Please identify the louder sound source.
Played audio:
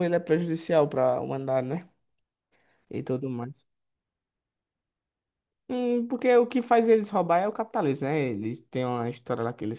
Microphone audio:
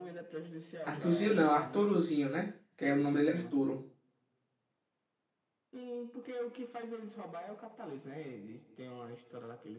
user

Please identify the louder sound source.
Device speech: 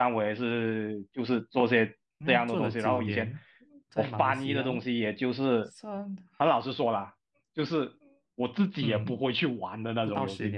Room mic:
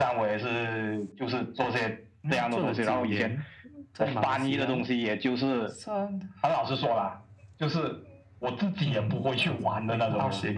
echo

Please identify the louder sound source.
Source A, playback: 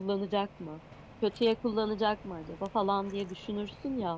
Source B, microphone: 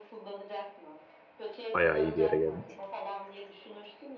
user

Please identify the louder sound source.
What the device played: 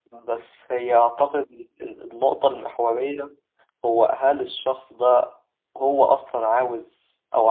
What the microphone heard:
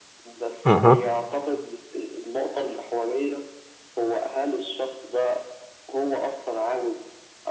user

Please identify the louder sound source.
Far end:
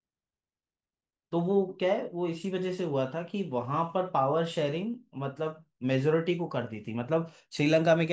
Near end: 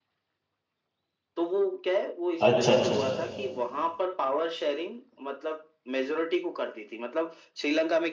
user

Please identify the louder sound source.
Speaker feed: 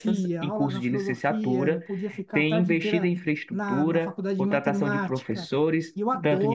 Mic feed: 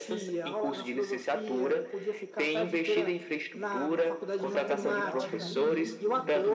echo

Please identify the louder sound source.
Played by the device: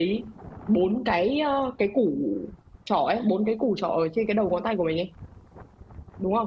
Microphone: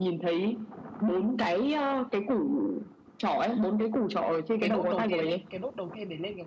echo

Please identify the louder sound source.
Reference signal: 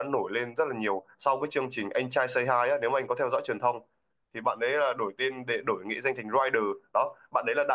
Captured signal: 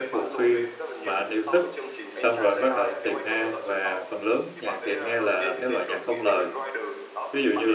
user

